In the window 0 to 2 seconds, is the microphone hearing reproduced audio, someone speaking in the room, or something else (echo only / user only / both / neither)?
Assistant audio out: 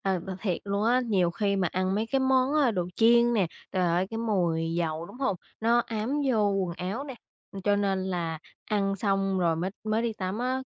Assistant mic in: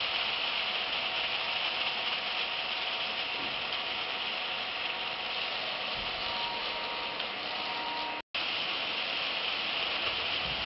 neither